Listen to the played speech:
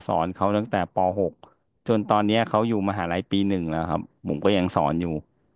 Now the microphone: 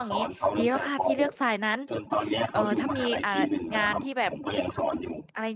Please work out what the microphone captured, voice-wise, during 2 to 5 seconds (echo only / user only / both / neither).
both